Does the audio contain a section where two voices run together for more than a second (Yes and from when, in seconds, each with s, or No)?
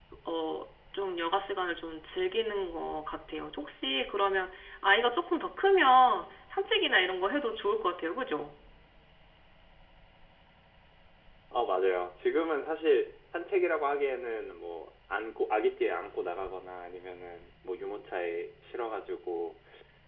No